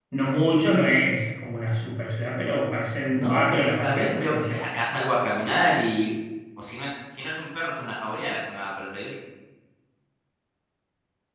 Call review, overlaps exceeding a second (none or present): present